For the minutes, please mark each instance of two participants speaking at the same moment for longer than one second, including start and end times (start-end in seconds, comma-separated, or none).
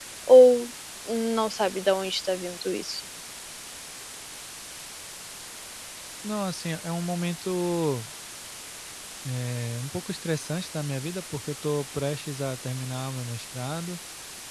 none